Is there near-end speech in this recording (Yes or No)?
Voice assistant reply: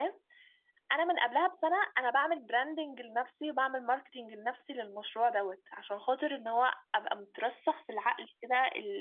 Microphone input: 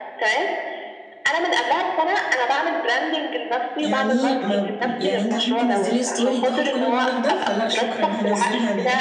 Yes